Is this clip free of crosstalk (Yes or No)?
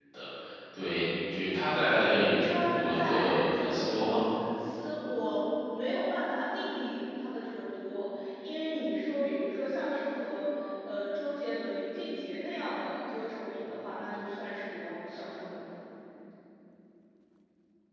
No